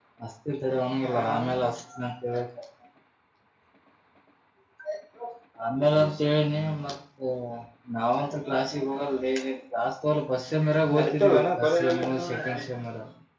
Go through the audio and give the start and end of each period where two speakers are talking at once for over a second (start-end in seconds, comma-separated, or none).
11.0-12.7